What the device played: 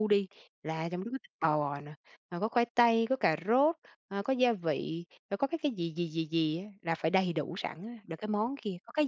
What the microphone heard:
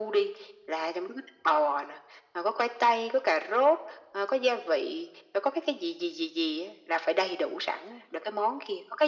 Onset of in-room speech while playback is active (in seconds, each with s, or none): none